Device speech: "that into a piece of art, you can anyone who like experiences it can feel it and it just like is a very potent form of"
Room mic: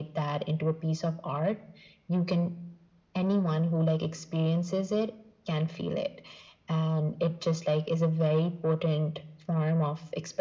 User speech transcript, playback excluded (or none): none